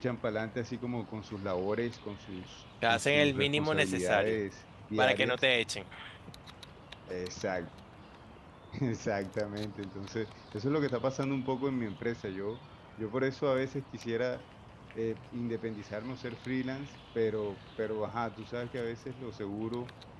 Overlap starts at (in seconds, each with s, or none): 2.9 s